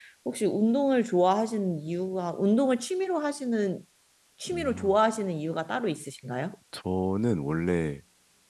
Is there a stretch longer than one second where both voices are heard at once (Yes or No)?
No